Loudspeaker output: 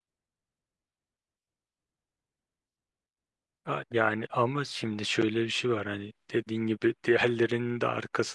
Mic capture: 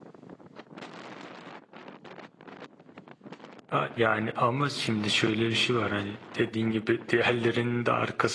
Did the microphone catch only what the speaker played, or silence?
Yes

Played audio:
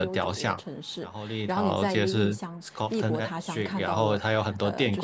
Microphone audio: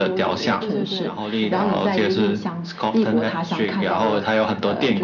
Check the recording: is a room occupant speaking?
Yes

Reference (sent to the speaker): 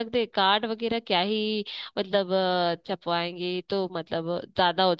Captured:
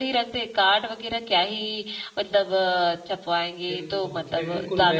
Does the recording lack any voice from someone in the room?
No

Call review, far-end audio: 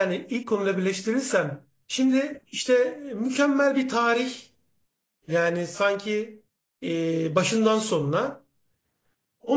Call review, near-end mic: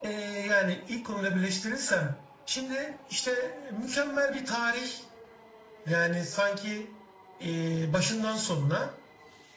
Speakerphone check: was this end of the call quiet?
Yes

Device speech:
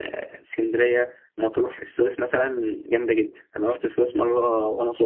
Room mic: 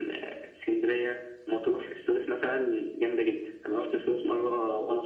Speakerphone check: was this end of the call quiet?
Yes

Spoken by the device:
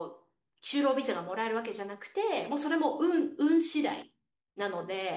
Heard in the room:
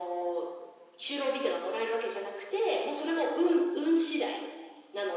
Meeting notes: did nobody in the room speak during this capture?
Yes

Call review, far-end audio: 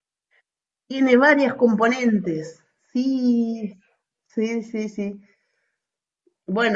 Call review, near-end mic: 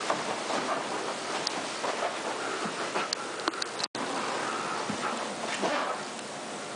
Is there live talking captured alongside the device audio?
No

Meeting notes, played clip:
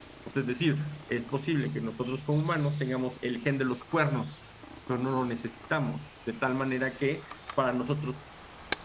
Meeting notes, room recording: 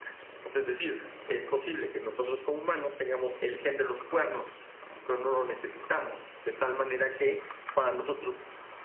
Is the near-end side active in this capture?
No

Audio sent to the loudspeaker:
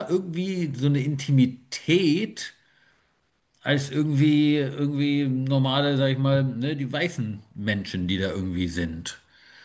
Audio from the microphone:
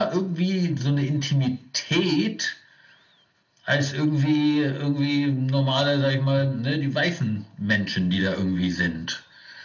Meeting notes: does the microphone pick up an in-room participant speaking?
No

